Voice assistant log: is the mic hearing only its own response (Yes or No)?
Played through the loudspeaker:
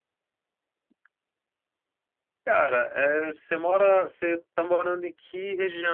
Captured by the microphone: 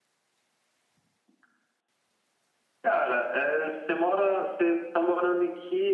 Yes